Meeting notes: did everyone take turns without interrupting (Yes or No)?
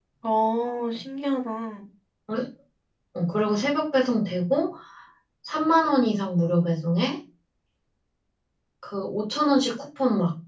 Yes